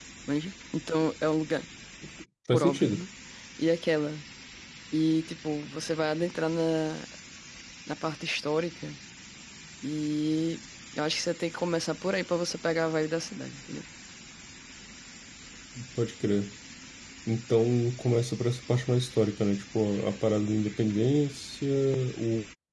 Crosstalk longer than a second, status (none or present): none